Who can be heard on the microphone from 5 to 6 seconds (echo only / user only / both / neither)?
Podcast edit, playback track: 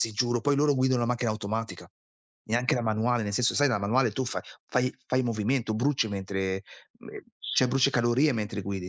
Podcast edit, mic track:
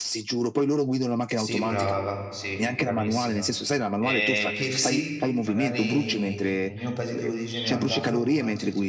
both